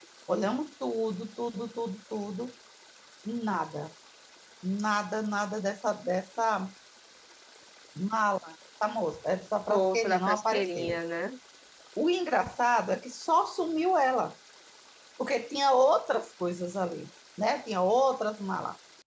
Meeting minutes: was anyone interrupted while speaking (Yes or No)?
Yes